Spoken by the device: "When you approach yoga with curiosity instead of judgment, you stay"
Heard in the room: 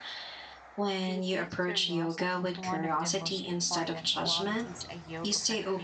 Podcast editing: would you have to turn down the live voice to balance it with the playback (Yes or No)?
No